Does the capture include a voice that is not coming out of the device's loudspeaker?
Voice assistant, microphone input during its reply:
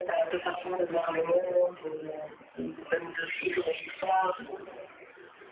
No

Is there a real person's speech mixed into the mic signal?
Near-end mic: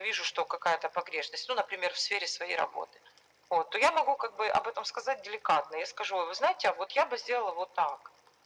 No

